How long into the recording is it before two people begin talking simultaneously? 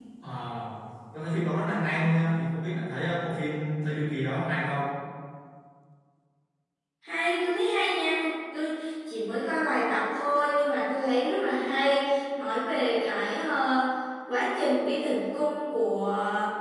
none

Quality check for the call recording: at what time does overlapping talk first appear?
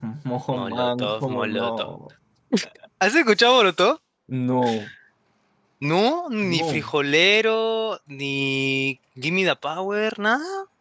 0.6 s

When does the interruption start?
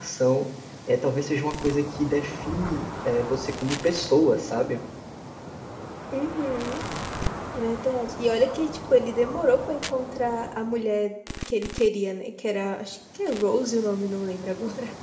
none

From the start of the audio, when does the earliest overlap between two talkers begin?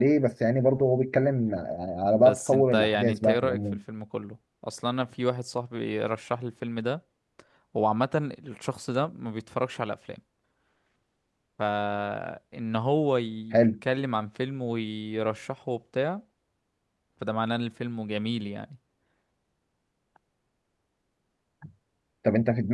2.1 s

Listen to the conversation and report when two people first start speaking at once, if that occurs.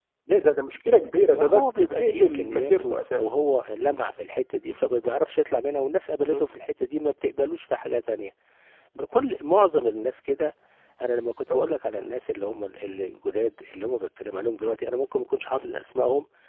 1.3 s

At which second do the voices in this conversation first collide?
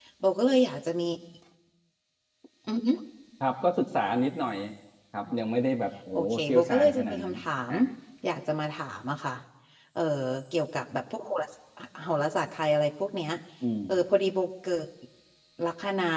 6.1 s

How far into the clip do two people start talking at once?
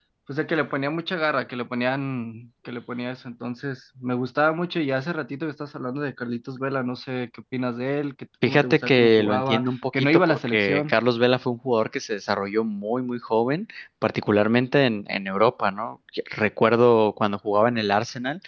8.4 s

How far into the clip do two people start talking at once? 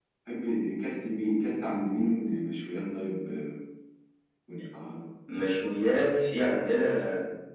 none

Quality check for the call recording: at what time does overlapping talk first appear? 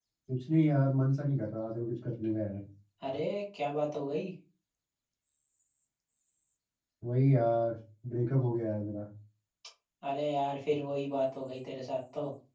none

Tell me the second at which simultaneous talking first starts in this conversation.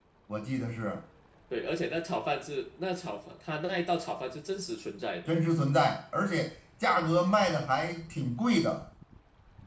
none

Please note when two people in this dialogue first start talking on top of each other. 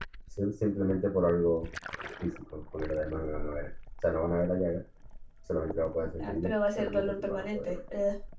6.2 s

